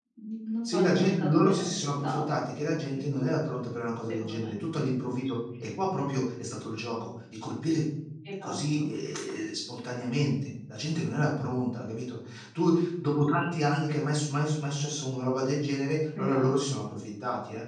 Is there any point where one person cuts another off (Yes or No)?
Yes